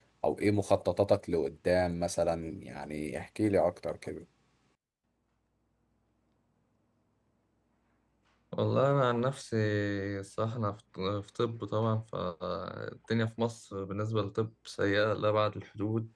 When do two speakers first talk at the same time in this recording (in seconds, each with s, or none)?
none